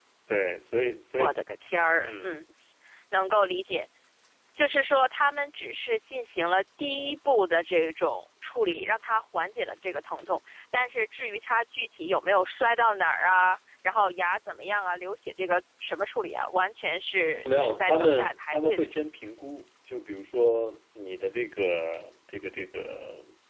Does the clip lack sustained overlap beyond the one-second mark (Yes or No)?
No